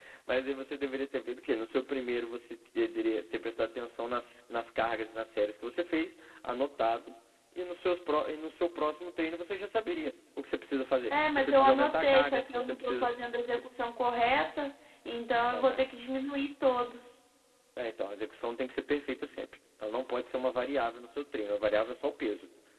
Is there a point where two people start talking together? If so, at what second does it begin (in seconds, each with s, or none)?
11.1 s